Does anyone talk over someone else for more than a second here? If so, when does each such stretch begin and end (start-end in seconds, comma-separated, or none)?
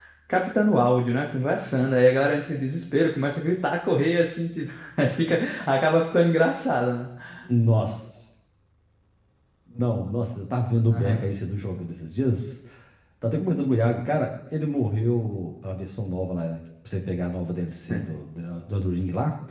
none